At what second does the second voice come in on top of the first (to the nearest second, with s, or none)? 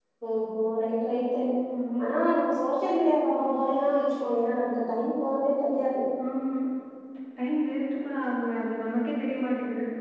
none